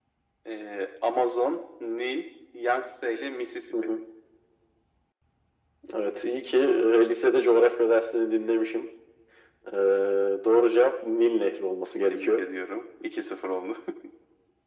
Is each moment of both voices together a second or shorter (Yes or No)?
Yes